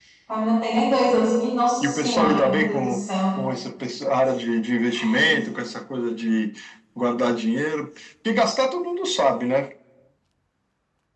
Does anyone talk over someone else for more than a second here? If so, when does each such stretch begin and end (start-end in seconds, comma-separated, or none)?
1.8-3.1